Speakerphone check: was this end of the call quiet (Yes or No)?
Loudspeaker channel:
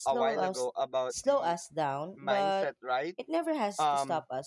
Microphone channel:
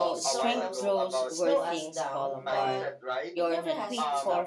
No